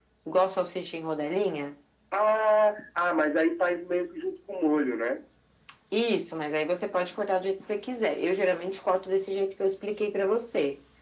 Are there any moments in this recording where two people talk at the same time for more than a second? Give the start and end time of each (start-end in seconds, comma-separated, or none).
none